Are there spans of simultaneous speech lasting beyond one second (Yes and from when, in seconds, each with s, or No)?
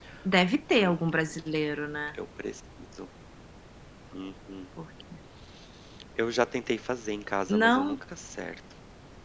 No